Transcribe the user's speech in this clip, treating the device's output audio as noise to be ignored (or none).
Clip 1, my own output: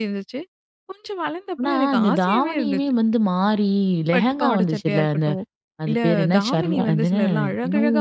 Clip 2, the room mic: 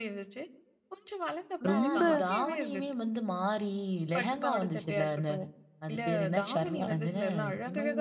ரொம்ப